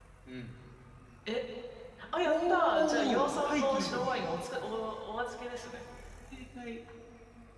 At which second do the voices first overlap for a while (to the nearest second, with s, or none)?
2 s